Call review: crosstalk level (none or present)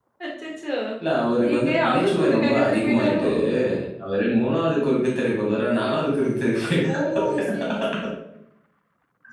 present